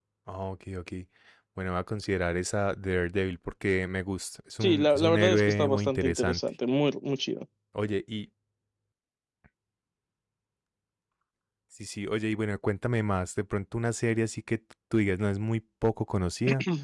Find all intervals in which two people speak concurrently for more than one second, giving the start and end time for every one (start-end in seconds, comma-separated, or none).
4.6-6.4